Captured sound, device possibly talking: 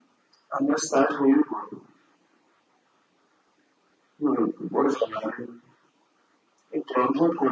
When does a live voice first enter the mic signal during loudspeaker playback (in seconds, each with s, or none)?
none